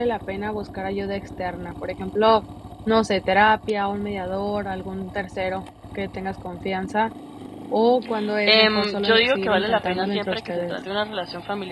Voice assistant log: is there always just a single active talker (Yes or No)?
No